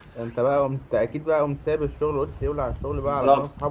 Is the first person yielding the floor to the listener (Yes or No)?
Yes